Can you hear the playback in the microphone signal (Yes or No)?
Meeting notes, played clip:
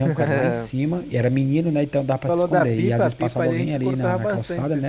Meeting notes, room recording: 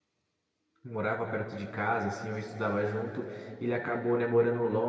No